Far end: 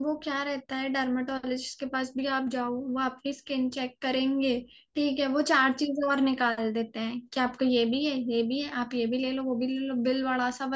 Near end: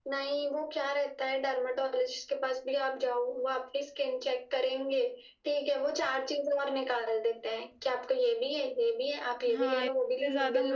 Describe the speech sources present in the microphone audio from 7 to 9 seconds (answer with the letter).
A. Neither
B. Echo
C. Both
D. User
B